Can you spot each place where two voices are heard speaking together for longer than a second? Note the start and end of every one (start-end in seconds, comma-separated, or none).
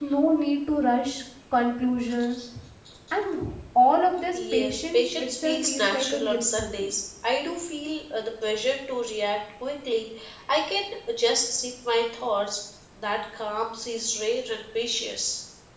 4.3-6.9